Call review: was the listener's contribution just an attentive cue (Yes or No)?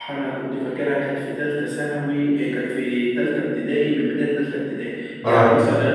Yes